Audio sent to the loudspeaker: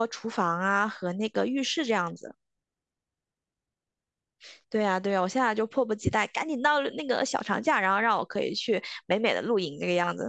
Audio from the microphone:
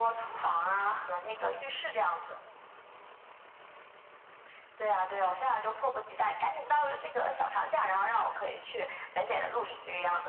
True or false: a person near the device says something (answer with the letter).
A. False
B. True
A